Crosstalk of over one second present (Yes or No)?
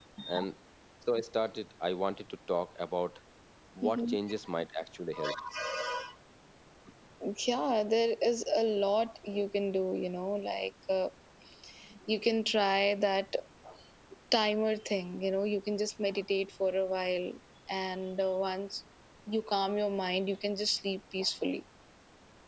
No